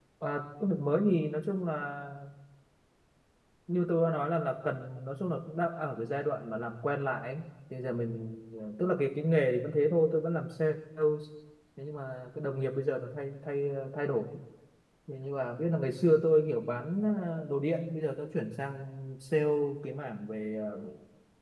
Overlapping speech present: No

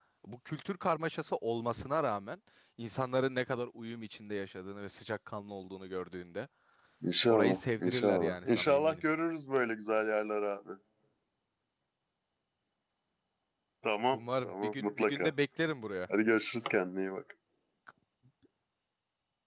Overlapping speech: Yes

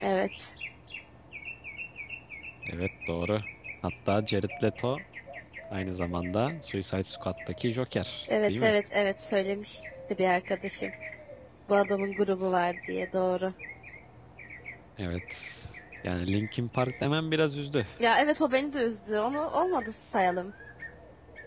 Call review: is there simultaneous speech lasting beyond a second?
No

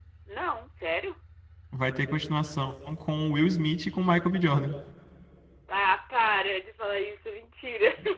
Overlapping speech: No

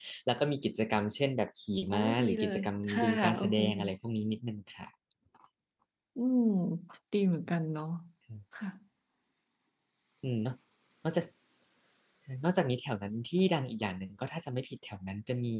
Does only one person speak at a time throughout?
No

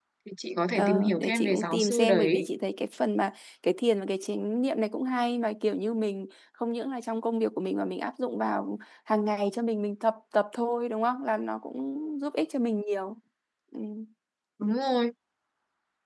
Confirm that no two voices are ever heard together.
No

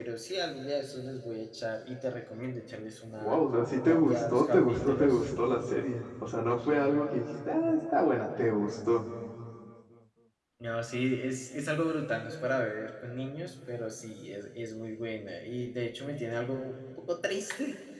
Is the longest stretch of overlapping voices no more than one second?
No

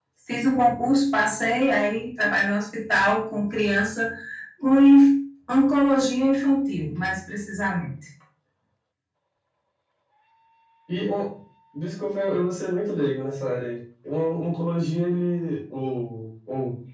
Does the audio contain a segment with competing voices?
No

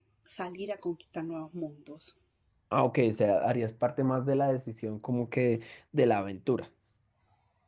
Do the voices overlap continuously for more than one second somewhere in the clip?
No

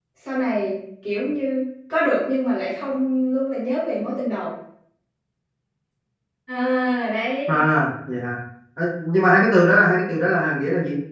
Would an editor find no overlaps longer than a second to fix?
Yes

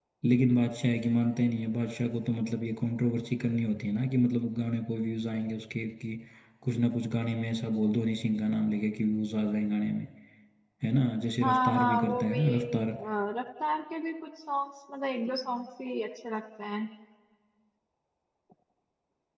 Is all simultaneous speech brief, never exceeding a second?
No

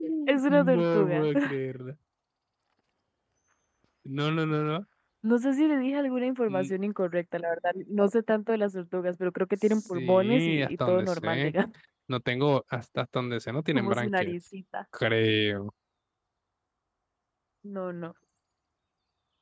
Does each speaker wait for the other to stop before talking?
No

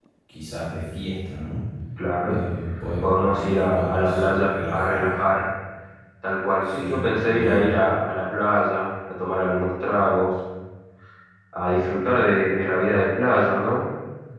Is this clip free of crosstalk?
No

